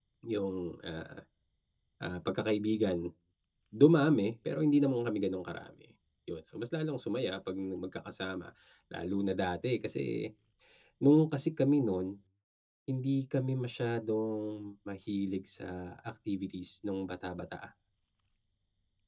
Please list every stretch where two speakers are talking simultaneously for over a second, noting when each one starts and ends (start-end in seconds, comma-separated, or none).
none